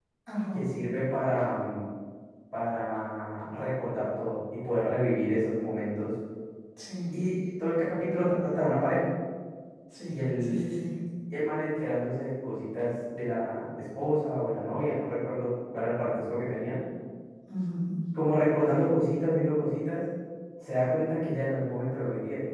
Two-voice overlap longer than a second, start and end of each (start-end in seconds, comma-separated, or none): none